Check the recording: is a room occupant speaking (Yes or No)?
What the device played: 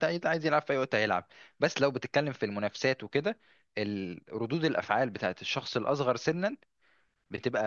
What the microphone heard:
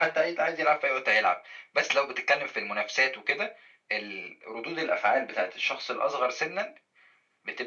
No